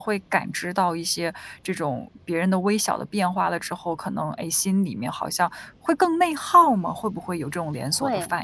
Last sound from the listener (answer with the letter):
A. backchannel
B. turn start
B